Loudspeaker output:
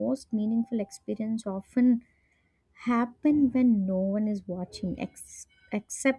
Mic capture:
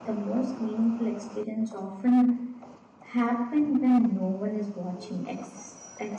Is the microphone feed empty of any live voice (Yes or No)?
Yes